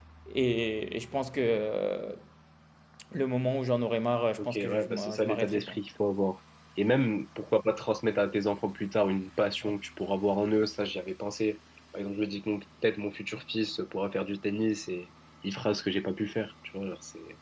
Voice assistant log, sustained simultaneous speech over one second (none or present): present